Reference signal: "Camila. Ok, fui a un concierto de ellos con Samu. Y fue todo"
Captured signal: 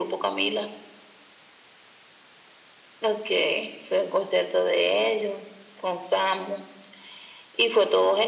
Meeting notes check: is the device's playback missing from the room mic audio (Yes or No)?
No